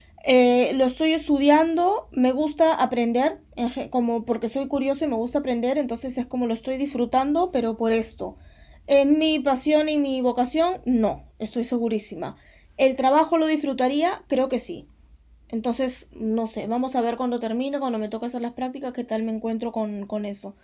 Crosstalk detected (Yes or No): No